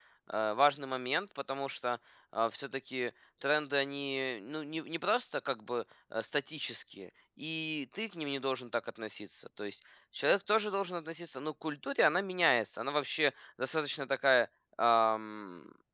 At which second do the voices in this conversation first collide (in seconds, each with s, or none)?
none